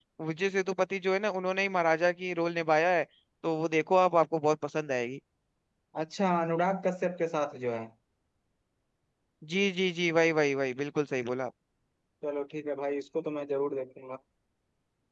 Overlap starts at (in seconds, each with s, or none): none